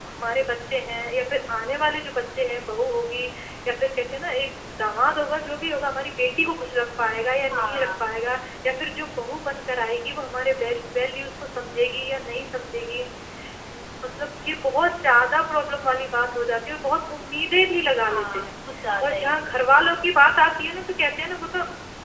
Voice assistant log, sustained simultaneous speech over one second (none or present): none